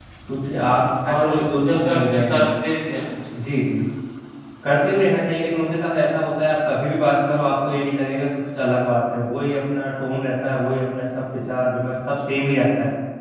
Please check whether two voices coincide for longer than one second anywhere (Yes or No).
Yes